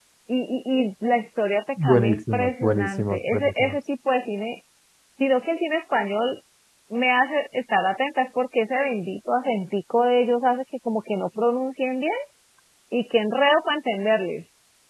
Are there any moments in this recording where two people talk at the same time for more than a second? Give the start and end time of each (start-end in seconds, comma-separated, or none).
1.8-3.8